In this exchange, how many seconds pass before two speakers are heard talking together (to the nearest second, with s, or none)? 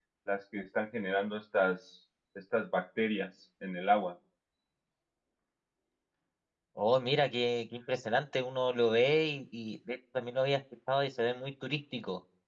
none